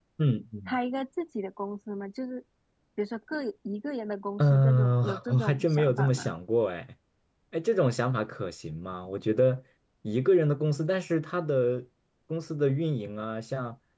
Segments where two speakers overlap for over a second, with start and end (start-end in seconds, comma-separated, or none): 4.4-6.3